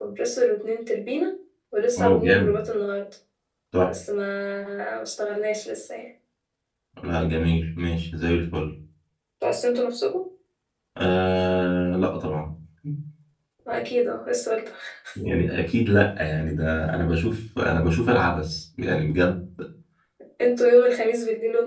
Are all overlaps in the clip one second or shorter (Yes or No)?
Yes